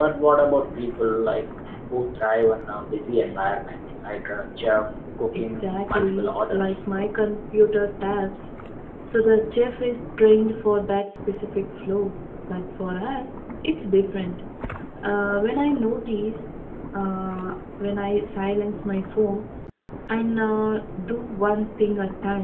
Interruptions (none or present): present